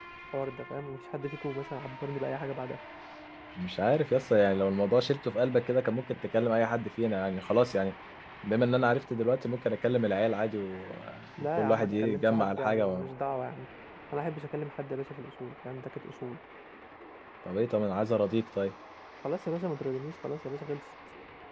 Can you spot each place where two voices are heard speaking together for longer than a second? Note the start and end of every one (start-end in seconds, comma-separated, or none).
11.4-13.1